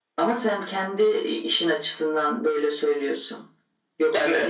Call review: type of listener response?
listening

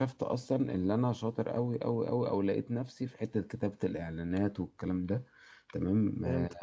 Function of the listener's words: listening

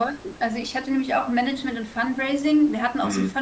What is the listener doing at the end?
listening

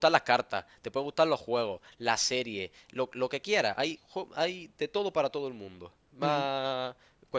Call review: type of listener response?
listening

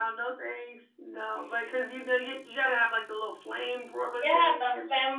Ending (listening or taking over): taking over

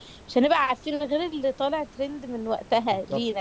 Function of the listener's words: taking over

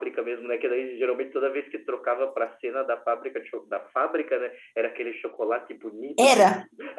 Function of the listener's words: listening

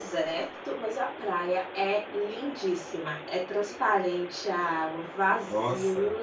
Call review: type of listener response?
listening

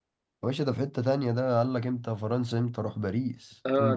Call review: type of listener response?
taking over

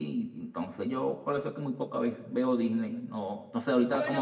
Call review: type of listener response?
taking over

